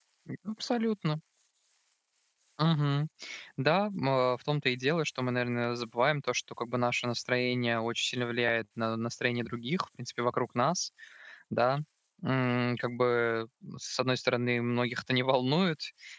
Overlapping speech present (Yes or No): No